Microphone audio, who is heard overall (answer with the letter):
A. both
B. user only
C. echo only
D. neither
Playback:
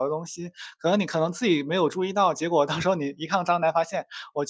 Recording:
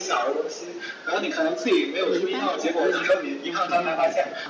A